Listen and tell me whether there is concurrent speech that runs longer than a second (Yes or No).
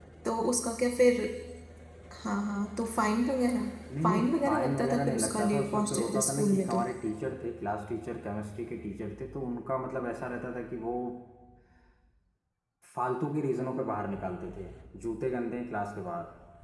Yes